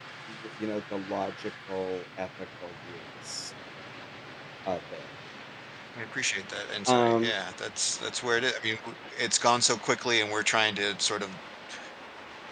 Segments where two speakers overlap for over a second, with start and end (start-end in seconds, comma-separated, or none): none